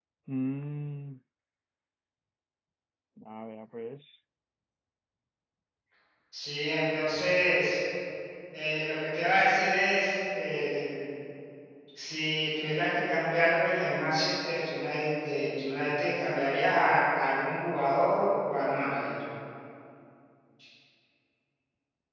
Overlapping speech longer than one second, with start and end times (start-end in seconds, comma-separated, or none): none